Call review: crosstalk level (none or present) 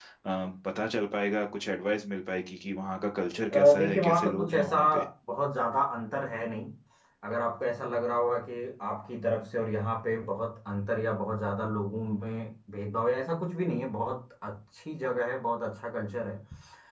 present